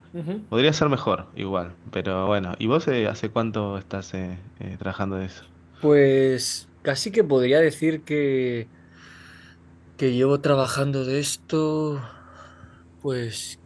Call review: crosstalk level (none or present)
none